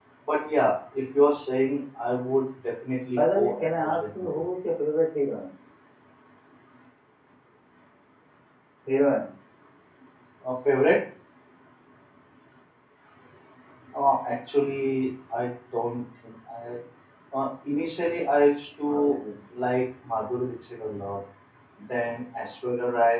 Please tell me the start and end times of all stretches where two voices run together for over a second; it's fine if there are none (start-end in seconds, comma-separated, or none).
3.2-4.5